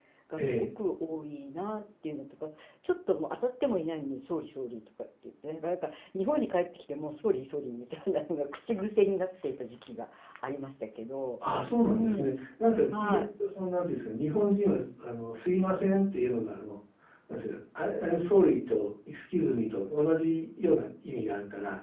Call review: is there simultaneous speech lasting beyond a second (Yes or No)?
No